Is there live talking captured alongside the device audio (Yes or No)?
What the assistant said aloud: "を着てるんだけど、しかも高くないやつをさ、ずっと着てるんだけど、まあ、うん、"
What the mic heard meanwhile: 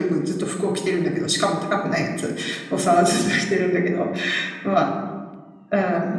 No